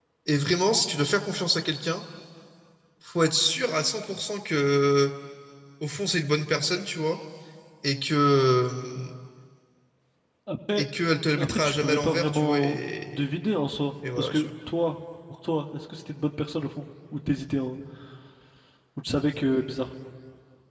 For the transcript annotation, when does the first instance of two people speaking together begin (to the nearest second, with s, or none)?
11 s